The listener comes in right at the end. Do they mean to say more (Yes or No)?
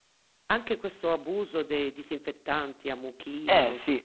No